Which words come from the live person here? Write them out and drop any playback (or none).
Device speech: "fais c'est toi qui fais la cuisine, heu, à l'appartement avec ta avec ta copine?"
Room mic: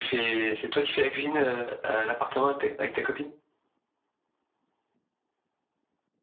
none